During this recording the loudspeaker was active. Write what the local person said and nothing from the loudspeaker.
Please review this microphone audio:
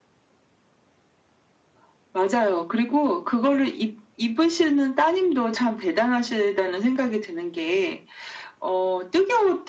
none

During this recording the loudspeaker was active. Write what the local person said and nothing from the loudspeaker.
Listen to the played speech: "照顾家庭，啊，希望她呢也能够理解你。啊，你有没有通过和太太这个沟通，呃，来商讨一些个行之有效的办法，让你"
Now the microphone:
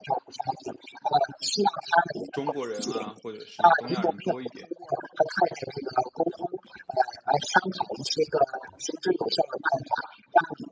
中国人啊或者是东亚人多一点。

